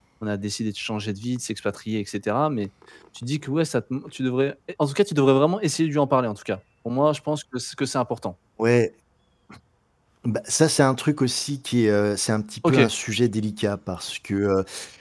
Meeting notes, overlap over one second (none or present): none